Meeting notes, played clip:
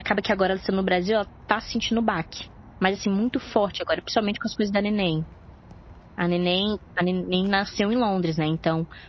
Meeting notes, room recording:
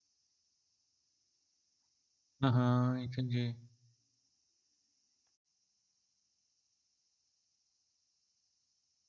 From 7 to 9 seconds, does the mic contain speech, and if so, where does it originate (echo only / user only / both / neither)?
neither